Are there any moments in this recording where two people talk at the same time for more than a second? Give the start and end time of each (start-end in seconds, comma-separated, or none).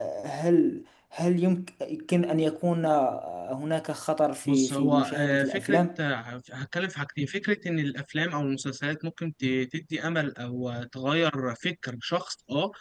4.5-5.8